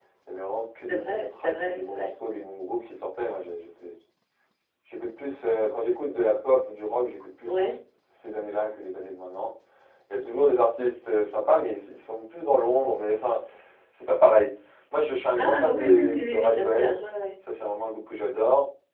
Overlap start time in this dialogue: 0.9 s

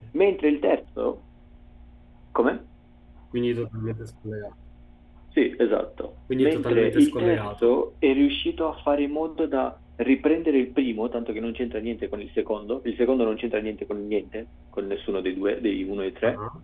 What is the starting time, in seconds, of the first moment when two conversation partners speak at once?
6.3 s

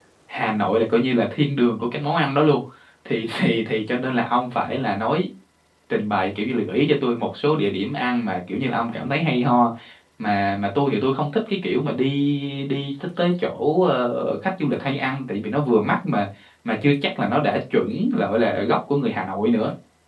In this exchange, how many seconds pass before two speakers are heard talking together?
none

